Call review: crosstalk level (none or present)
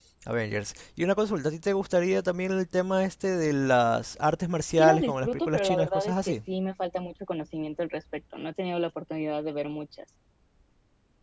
present